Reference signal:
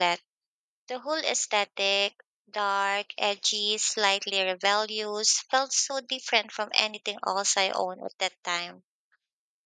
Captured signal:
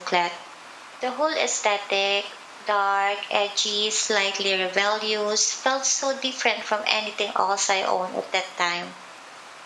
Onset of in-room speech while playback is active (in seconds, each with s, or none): none